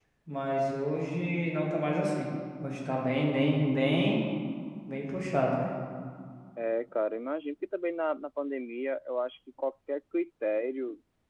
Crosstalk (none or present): none